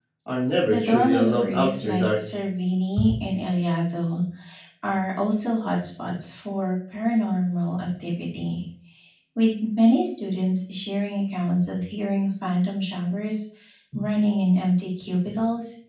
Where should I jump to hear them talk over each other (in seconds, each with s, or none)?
0.6 s